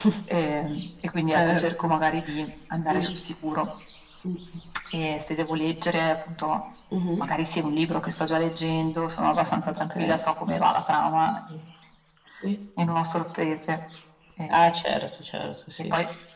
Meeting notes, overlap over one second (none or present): none